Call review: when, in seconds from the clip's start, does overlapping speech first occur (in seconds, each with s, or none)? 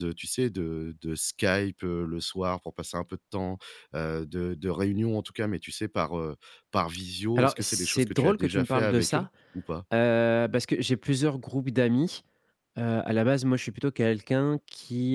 7.4 s